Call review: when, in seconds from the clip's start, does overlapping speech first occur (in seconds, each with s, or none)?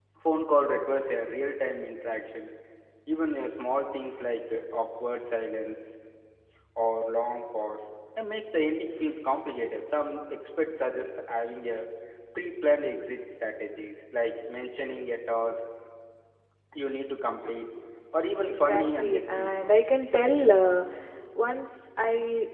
18.4 s